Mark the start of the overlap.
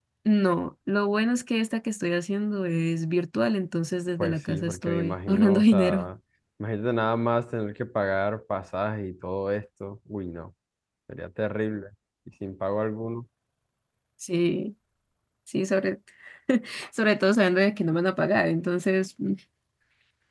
4.2 s

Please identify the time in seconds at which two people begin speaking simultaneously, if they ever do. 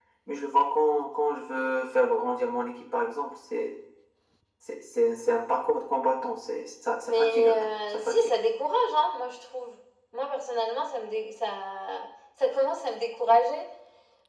7.1 s

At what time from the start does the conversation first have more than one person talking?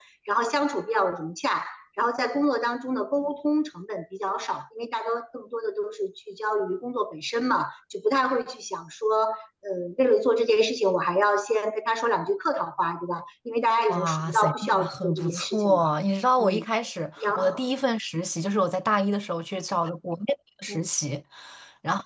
13.9 s

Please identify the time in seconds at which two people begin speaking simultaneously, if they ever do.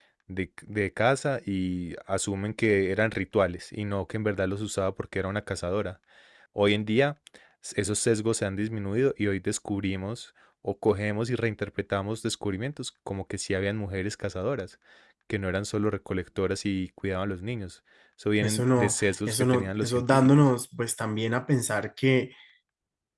18.4 s

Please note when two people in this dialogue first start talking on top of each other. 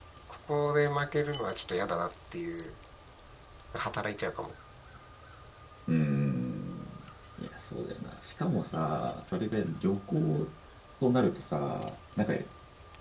none

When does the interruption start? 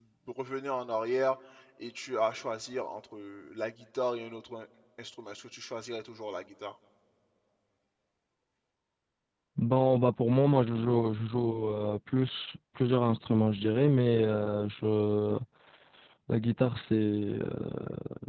none

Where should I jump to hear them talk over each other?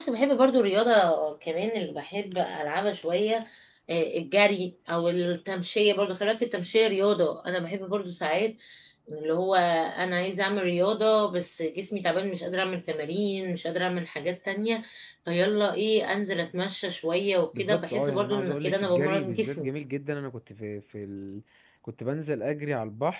17.5 s

